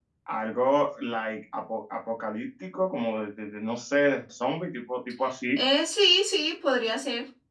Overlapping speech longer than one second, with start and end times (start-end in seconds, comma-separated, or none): none